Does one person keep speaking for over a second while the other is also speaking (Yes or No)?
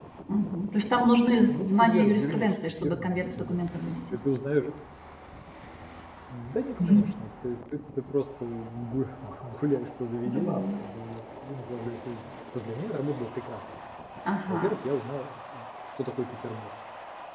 Yes